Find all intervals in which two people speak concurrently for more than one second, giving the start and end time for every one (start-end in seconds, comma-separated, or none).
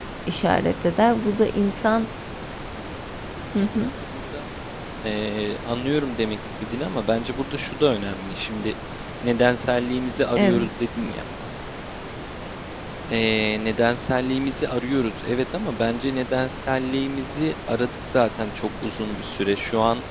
none